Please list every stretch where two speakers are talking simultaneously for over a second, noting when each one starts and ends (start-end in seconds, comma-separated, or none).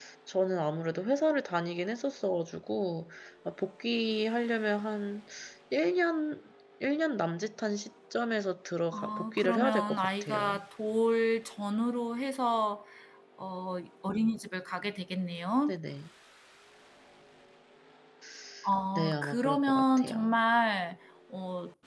8.9-10.6, 18.9-20.4